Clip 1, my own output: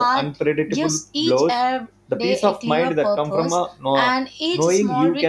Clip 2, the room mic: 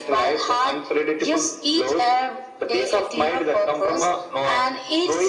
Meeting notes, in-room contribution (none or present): none